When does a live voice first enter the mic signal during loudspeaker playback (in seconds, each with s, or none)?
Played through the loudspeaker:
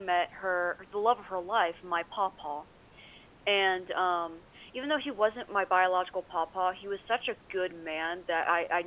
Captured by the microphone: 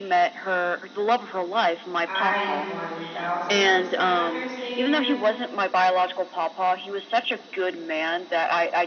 2.1 s